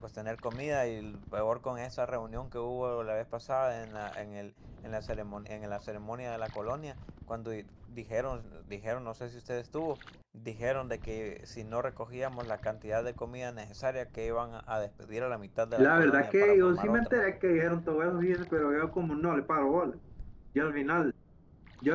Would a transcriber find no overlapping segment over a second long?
No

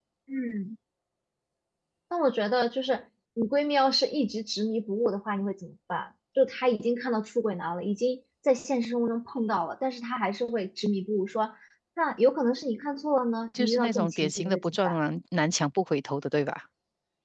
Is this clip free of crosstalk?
No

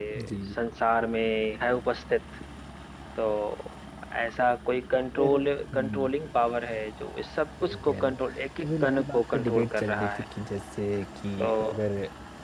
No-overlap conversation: No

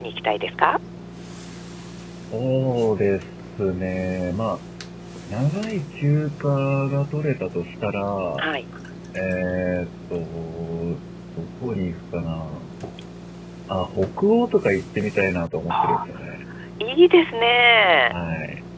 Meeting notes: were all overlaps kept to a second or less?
Yes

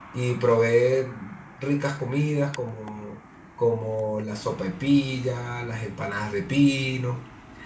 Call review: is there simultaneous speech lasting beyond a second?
No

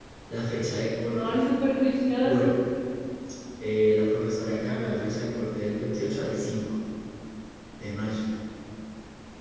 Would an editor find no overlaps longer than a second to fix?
Yes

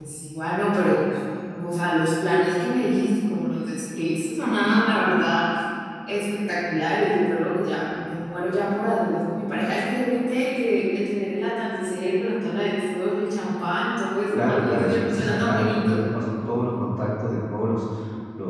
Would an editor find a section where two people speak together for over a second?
Yes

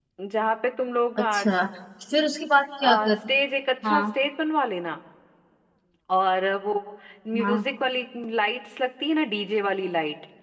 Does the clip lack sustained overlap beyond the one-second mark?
Yes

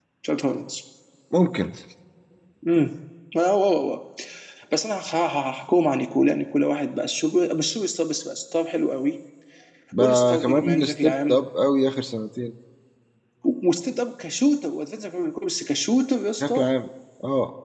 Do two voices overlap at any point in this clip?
Yes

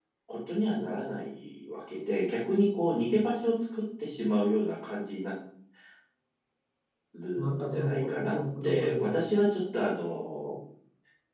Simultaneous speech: Yes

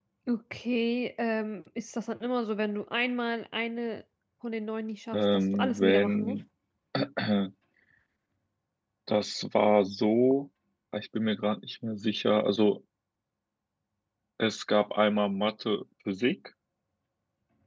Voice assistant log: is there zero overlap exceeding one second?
No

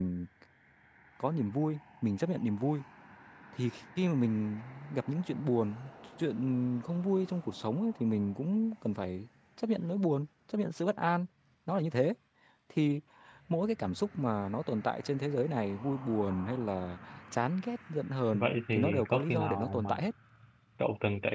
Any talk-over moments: Yes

